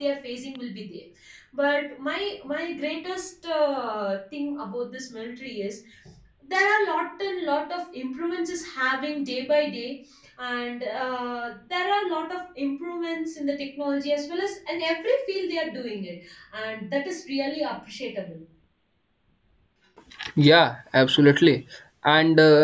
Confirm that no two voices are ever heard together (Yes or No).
Yes